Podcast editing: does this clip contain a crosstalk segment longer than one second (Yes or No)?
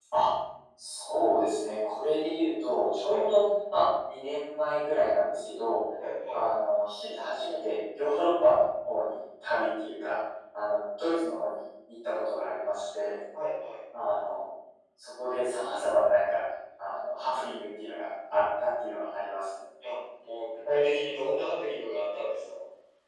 No